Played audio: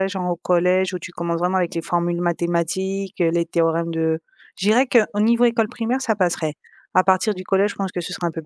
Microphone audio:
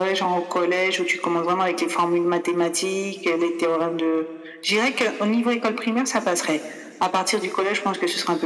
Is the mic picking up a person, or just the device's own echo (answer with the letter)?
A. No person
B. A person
A